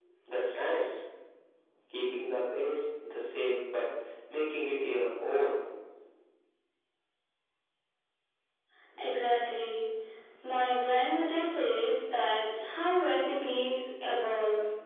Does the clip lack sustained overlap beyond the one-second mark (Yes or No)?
Yes